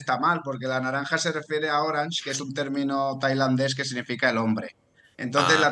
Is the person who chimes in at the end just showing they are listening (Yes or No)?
Yes